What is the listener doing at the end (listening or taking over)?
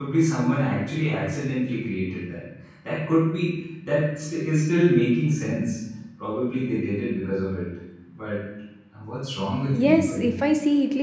taking over